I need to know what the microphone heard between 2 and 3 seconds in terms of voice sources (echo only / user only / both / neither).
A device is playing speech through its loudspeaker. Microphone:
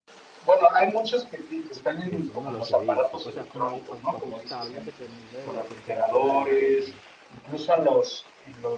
both